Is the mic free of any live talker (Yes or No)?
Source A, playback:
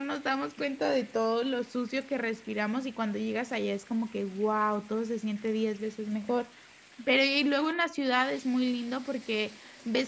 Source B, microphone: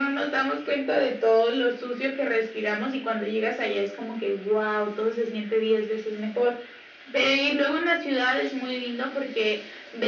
Yes